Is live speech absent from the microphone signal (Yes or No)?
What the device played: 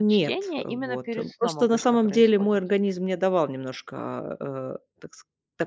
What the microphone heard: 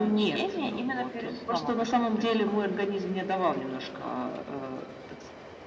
Yes